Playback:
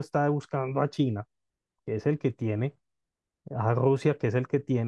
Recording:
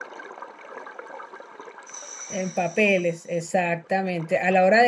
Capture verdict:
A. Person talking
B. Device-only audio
A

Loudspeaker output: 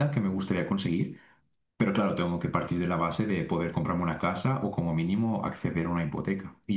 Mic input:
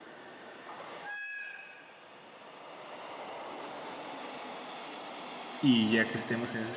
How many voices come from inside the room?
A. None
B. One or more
B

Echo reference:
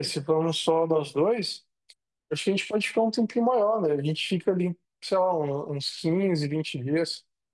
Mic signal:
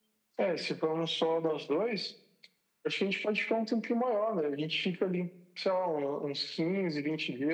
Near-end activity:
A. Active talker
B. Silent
B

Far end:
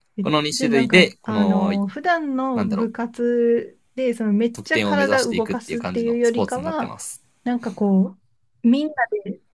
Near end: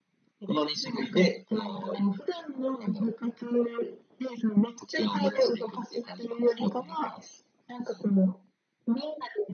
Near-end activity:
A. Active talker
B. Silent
B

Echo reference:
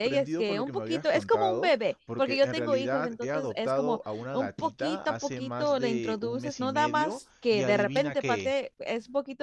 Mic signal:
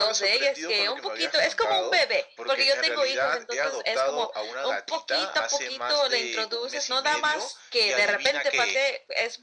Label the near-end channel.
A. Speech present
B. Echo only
B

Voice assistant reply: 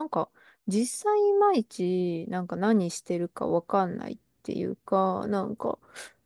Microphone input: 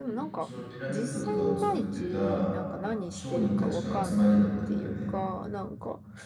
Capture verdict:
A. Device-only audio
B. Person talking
B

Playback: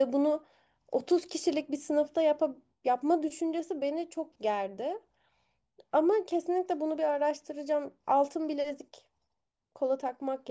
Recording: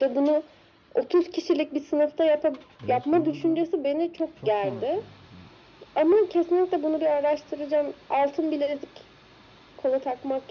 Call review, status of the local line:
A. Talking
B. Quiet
A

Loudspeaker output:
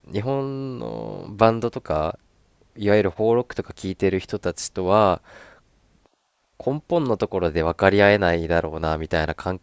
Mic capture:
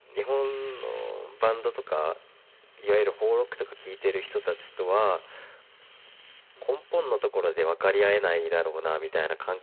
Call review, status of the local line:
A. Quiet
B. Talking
A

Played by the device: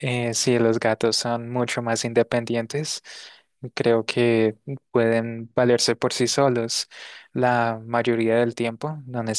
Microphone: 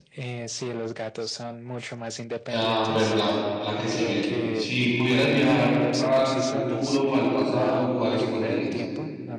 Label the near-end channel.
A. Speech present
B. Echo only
A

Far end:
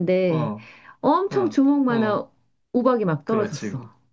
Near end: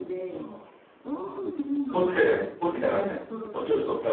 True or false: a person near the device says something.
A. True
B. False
A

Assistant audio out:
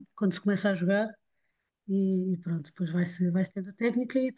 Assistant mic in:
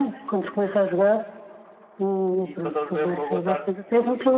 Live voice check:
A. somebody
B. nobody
A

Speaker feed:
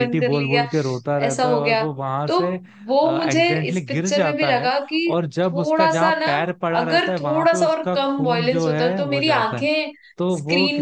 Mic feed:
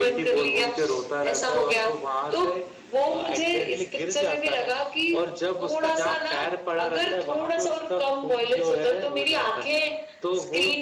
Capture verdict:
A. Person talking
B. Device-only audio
B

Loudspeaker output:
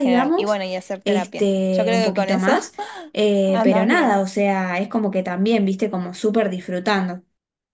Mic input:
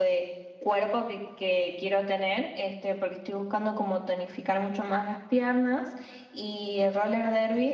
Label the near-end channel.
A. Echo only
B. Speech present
B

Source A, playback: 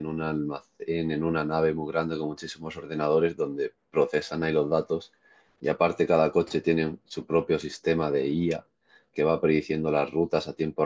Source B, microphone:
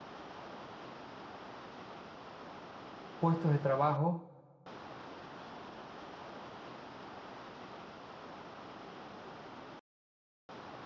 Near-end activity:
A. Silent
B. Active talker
B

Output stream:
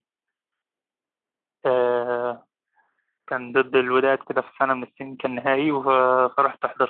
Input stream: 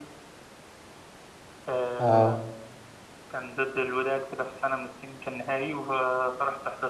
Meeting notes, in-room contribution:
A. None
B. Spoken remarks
B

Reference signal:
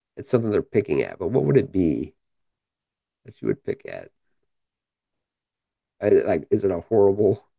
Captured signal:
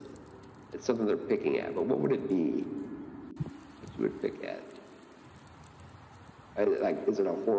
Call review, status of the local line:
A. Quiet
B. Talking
A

